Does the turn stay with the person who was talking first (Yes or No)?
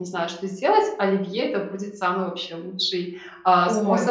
Yes